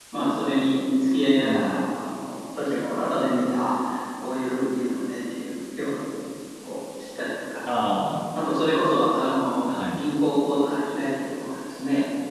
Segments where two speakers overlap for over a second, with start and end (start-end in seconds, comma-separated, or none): none